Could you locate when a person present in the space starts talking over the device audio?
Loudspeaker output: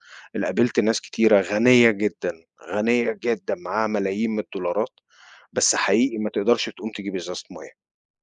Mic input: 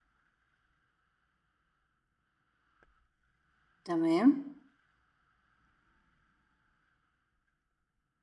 3.9 s

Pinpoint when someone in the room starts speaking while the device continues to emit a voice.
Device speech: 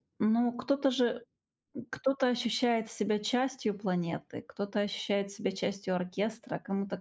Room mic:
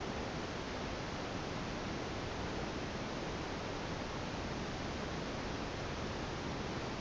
none

